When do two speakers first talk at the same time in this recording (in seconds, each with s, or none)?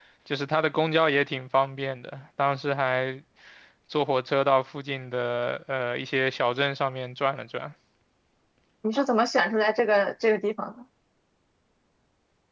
none